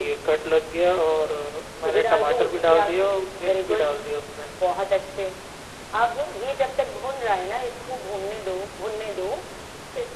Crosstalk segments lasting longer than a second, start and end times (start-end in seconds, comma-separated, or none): 1.9-3.1